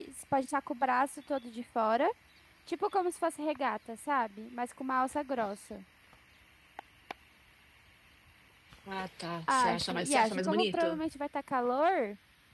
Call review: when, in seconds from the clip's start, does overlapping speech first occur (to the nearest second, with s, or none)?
9 s